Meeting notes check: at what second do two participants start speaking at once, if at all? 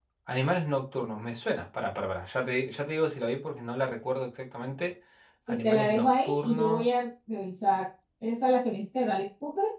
5.5 s

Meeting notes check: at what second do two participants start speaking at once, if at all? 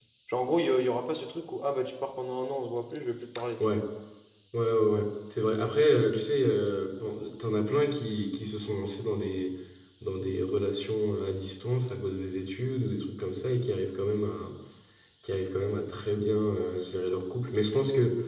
none

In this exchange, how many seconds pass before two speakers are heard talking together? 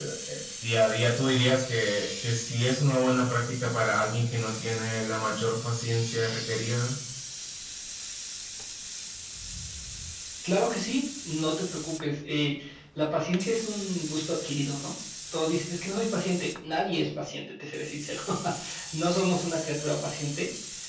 none

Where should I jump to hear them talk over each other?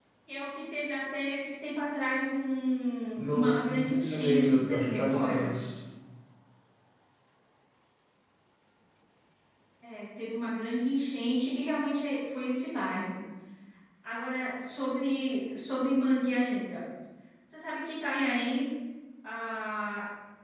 3.1 s

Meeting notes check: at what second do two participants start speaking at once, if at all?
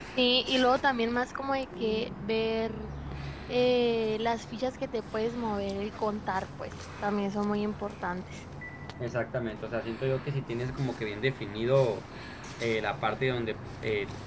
none

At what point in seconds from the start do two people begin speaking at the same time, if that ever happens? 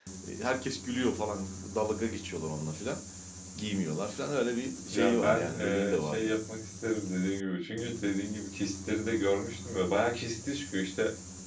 4.9 s

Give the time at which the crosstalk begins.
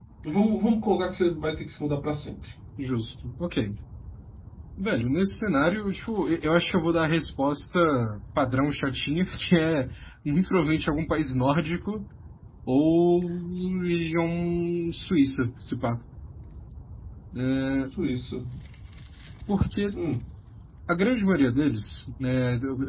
none

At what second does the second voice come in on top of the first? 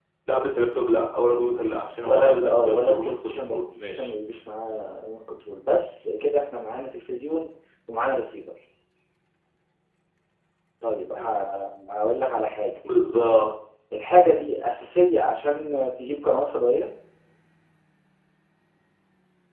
2.0 s

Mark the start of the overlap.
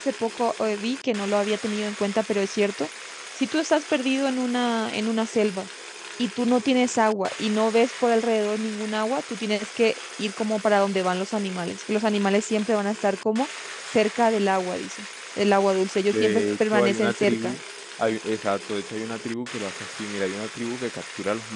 16.1 s

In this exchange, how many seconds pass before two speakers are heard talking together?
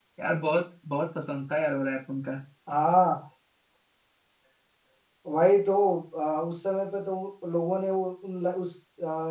none

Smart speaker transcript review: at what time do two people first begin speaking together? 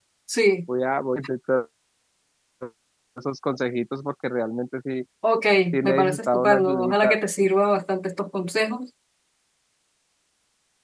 5.8 s

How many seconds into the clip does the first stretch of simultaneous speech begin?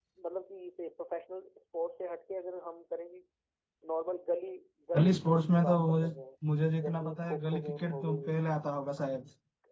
5.0 s

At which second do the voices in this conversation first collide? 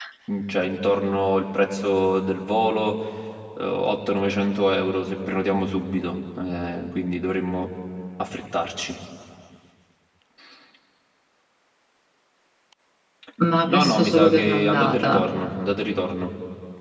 13.7 s

